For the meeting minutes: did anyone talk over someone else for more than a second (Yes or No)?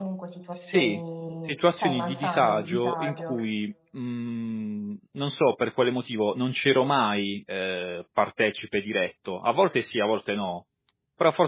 Yes